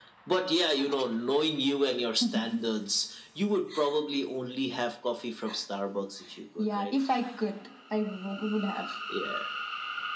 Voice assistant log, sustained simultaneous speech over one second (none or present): none